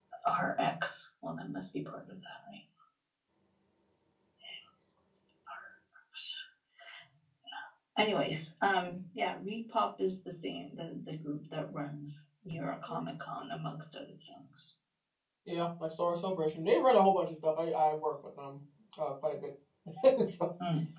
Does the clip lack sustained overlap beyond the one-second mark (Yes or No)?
Yes